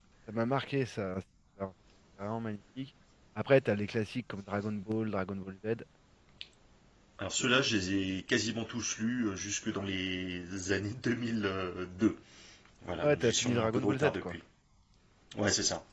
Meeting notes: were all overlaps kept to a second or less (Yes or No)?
No